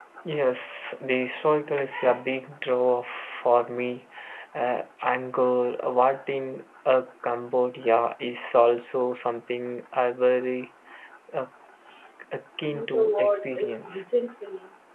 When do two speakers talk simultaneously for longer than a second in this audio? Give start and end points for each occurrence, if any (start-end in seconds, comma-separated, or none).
12.7-14.0